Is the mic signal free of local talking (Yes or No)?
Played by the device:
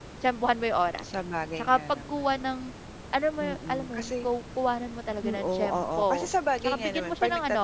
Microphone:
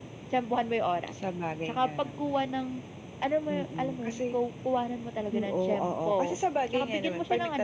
Yes